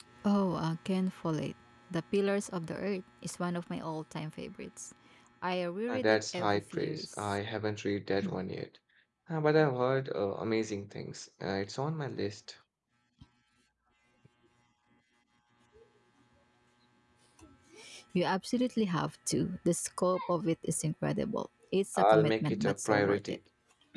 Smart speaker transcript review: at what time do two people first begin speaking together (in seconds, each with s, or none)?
5.9 s